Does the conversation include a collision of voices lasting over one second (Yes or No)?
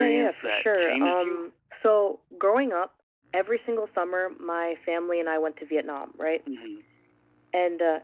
Yes